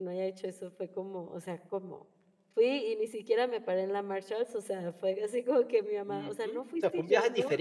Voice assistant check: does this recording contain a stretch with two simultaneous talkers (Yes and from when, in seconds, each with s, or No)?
Yes, from 6.1 s